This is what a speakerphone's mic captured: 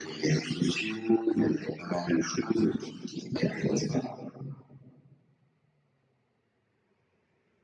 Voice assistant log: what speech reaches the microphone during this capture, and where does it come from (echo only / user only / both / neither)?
echo only